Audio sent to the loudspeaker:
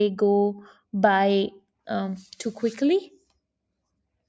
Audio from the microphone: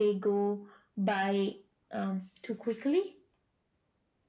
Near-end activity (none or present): none